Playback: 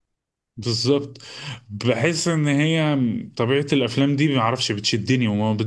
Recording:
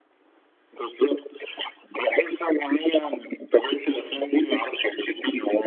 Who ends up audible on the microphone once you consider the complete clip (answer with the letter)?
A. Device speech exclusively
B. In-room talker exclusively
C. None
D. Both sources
A